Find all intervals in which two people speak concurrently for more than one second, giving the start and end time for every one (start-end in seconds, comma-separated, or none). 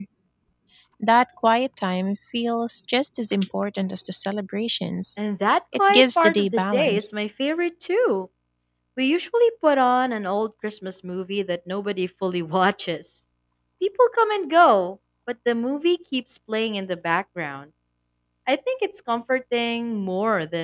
5.8-7.1